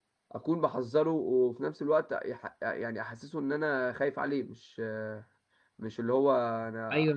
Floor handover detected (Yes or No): Yes